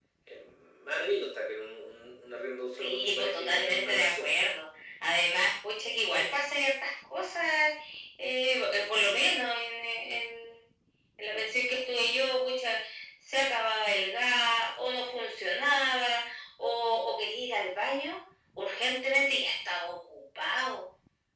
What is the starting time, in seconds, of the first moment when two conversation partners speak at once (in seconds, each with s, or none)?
2.8 s